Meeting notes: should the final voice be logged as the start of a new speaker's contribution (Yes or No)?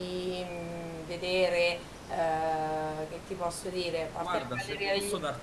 Yes